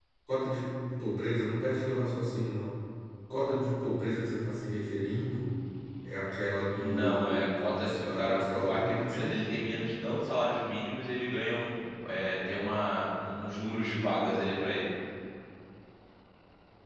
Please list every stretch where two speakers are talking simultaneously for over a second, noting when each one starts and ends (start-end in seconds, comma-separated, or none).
6.7-9.5